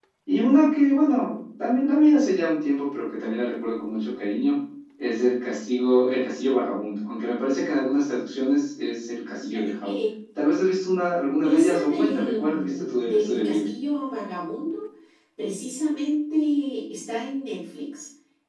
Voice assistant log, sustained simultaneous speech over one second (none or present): present